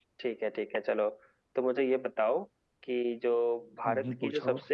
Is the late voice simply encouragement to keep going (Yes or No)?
Yes